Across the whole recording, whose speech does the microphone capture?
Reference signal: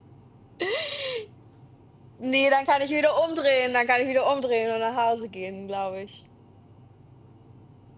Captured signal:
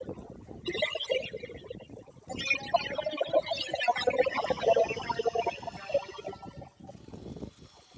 echo only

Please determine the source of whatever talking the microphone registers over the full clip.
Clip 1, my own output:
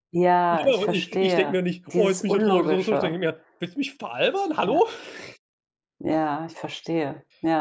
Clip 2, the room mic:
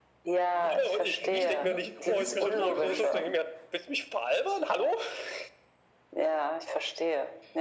both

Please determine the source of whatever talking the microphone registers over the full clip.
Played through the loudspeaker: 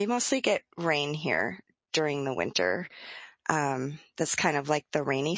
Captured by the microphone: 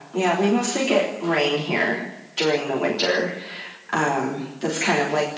echo only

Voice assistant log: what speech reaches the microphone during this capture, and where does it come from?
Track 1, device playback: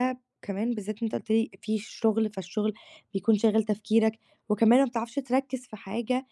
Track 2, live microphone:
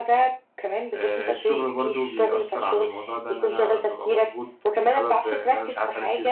both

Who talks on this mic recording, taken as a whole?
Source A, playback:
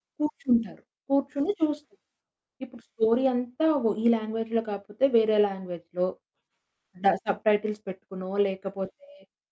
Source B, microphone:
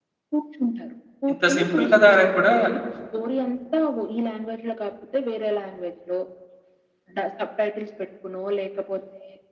both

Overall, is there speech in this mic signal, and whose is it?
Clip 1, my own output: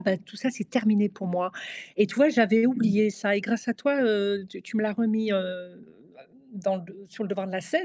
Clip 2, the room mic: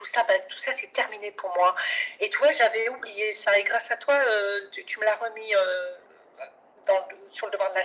echo only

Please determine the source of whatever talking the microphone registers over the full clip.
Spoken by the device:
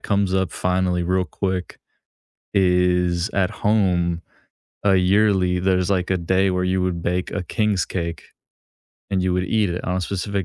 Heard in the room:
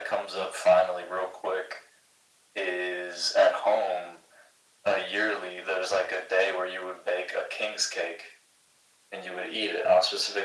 echo only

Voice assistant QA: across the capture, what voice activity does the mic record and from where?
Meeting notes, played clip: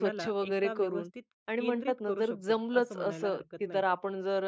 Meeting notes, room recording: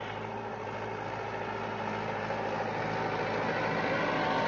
neither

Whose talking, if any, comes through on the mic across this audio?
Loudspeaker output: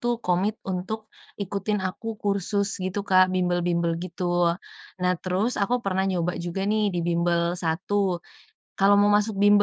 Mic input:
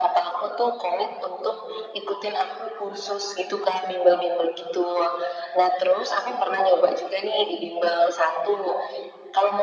echo only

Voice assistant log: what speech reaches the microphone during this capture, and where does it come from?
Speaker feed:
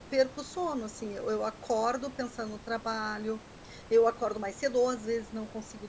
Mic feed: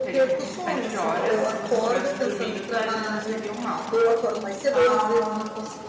both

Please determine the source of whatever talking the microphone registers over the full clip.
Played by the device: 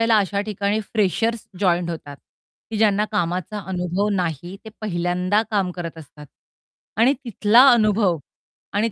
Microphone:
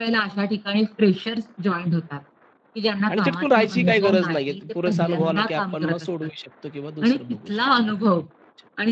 both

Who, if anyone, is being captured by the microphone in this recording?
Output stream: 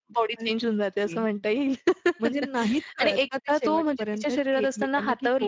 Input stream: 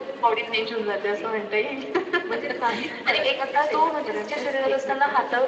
echo only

